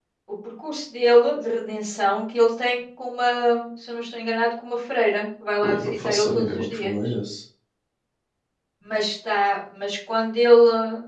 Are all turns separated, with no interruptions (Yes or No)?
No